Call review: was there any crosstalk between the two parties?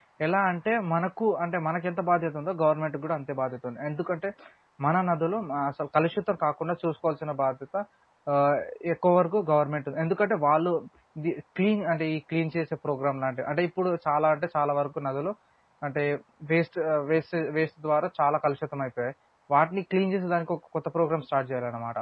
No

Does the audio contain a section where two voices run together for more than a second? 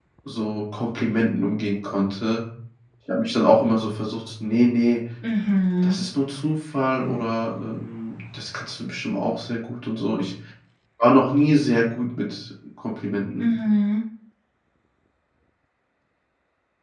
No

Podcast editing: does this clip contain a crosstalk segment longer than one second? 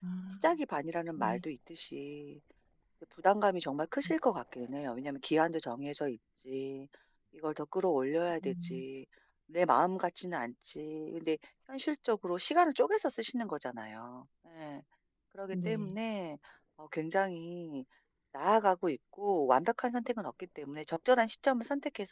No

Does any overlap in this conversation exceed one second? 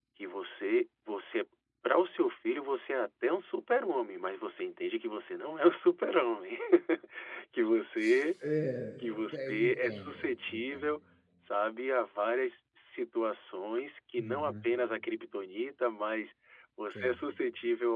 Yes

